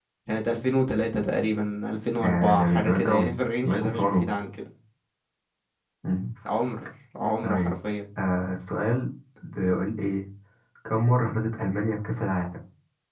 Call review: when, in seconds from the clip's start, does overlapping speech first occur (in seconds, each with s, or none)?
2.2 s